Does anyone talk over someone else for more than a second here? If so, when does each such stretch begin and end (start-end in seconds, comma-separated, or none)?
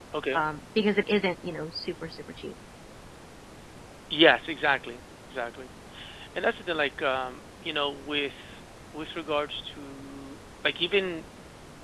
none